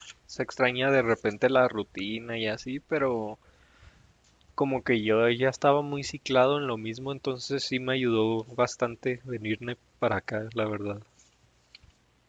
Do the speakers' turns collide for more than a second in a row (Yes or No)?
No